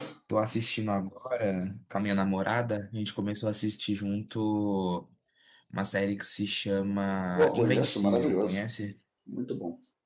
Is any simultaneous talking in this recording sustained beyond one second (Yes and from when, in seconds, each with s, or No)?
Yes, from 7.3 s